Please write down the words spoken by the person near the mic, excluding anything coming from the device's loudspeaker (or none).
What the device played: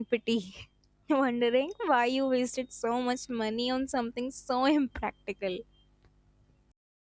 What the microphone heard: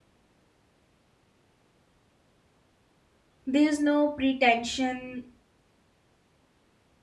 There's no pretension,